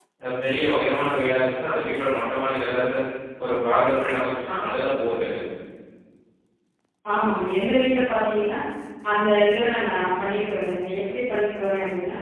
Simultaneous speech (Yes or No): No